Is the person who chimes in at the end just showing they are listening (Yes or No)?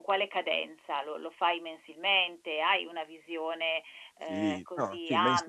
No